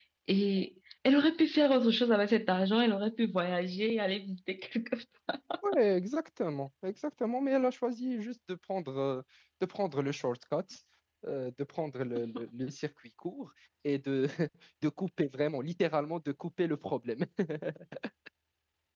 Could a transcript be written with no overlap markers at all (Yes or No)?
Yes